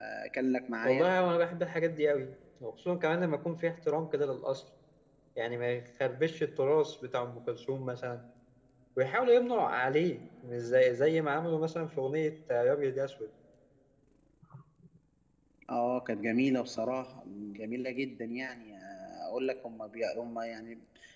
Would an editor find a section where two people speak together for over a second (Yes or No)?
No